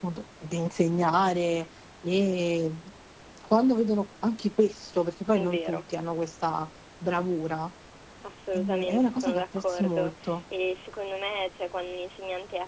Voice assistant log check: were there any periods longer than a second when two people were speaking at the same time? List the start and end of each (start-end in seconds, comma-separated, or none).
8.5-10.4